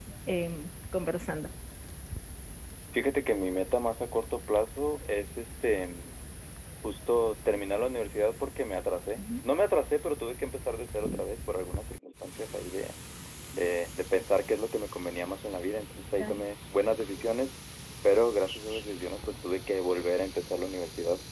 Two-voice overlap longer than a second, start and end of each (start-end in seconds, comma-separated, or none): none